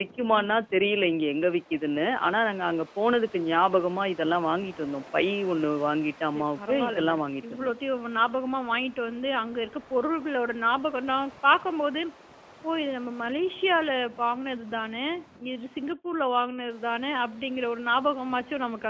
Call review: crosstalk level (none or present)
present